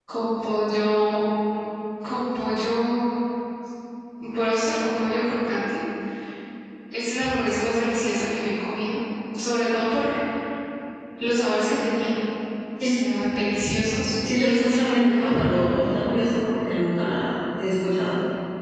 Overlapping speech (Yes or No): Yes